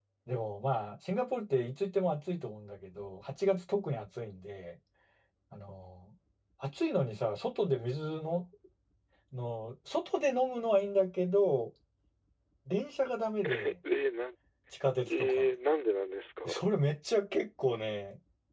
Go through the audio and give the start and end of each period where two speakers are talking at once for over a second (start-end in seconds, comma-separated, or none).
none